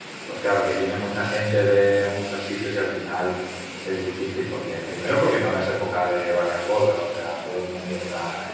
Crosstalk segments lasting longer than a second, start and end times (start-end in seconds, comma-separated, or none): none